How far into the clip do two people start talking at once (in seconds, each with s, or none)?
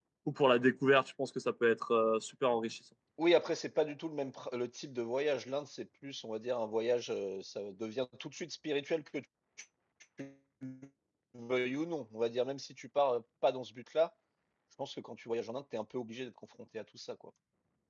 none